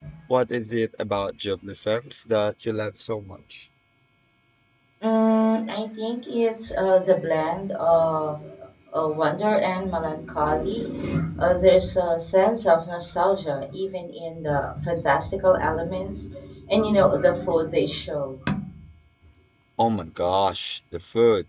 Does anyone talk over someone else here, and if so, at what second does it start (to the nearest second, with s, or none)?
none